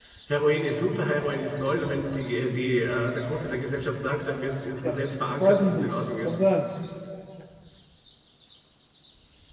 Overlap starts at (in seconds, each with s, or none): 4.8 s